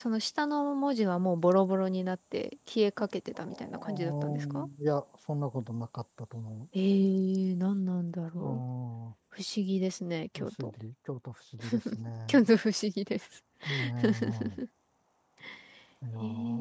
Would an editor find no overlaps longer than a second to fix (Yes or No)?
No